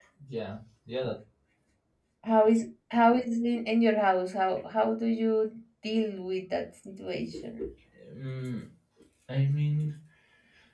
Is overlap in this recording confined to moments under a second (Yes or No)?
Yes